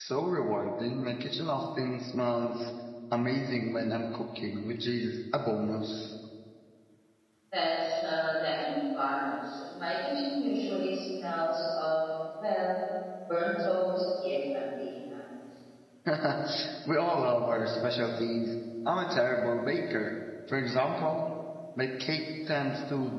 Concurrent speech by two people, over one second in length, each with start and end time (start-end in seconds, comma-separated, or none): none